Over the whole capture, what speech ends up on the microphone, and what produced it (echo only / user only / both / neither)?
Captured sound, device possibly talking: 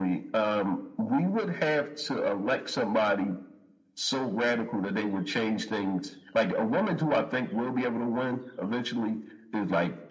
echo only